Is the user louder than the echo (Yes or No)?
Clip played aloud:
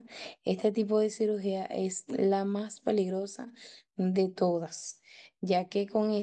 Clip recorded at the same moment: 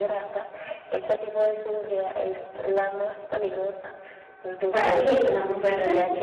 Yes